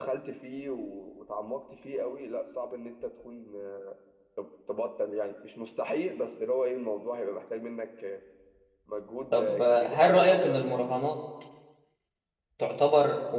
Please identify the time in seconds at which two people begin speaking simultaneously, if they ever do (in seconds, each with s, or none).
9.3 s